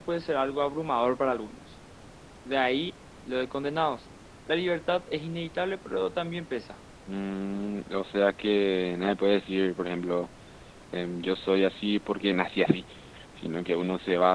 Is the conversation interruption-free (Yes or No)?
Yes